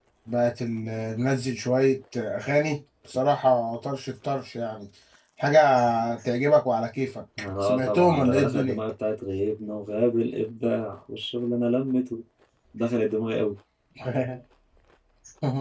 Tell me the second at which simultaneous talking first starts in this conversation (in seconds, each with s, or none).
7.4 s